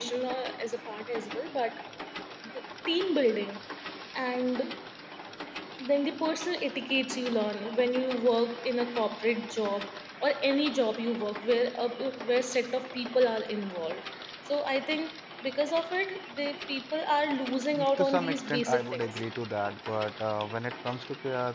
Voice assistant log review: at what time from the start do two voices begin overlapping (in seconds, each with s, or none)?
17.7 s